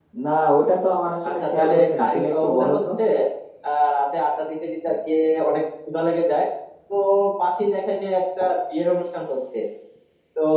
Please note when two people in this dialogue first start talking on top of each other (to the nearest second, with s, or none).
1 s